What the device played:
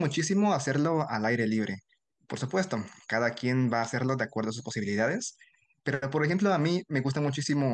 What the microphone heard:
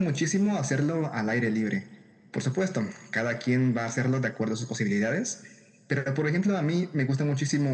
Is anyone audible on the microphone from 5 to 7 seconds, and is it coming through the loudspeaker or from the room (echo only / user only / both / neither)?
echo only